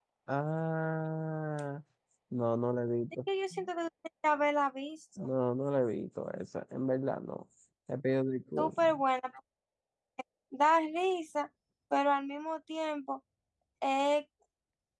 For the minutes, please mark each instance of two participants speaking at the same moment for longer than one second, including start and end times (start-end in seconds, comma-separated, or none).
none